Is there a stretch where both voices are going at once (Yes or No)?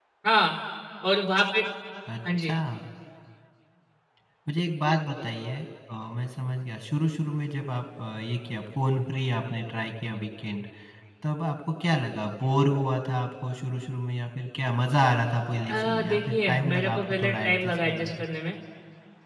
Yes